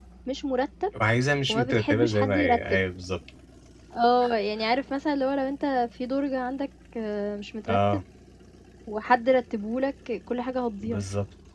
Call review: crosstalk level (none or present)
present